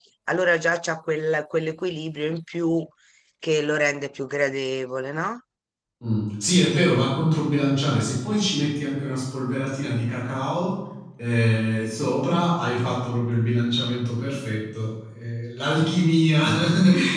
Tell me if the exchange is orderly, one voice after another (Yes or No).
Yes